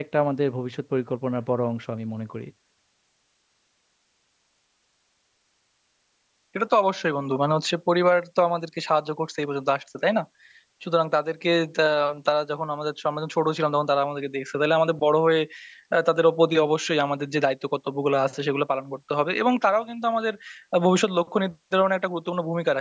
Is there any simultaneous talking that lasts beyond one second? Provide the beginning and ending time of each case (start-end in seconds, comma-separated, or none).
none